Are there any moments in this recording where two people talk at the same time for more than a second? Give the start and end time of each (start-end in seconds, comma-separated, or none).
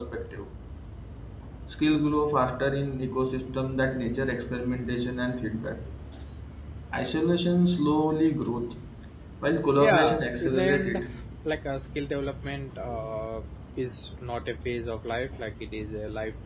9.8-11.0